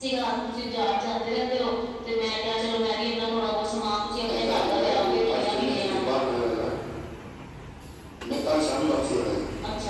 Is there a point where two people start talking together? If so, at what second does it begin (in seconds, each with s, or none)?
4.3 s